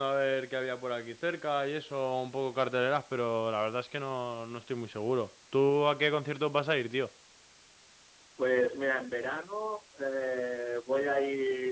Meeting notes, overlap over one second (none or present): none